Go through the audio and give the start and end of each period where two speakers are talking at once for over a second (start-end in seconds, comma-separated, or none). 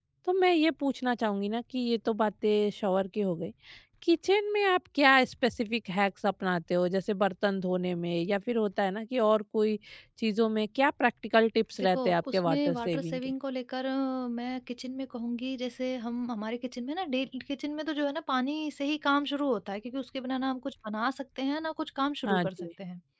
11.8-13.3